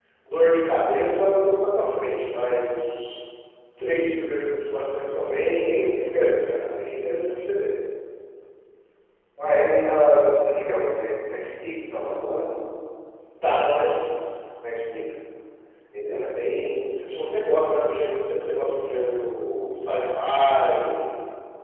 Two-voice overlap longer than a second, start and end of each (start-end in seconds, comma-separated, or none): none